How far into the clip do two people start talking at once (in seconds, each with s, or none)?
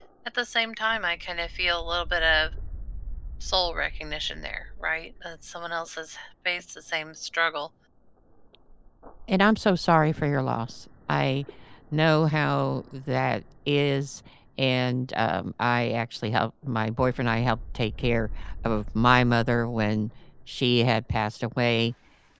none